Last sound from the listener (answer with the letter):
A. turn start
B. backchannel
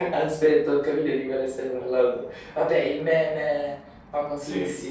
A